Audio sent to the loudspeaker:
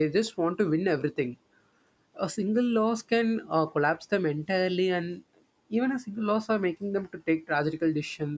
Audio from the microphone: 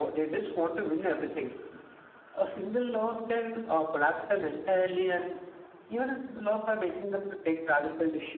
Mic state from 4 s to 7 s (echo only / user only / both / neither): echo only